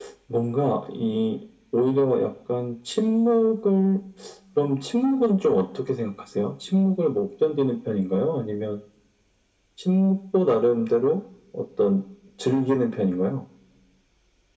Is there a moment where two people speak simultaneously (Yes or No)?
No